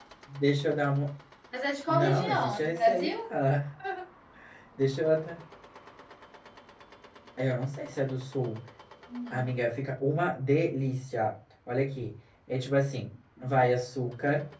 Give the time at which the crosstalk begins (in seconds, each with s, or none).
1.9 s